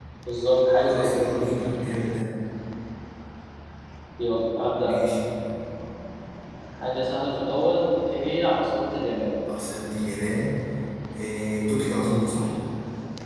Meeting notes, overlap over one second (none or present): none